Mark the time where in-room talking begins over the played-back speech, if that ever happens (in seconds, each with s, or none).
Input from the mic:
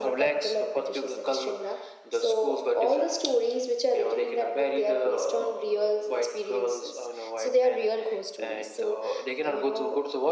none